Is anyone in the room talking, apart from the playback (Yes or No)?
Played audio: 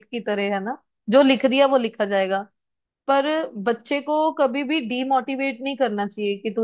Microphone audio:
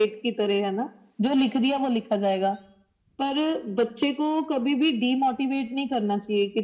No